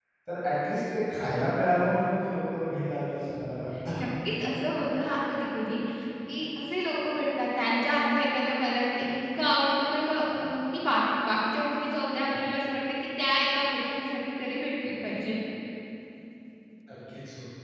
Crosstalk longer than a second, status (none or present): none